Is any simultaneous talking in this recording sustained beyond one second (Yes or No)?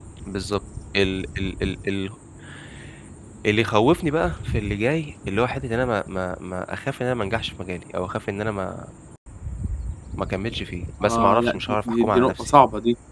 Yes